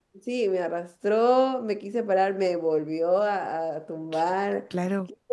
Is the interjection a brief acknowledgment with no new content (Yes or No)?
Yes